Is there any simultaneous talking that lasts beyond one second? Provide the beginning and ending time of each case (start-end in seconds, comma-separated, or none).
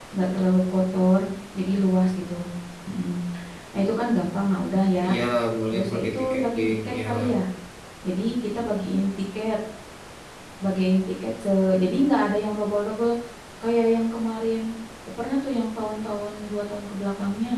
5.7-7.1